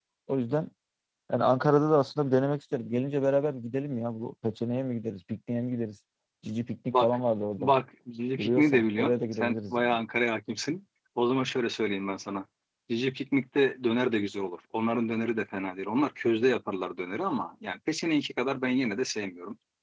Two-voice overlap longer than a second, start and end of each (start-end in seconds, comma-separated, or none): 8.4-9.9